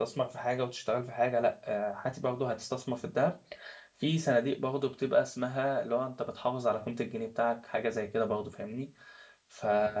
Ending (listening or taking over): listening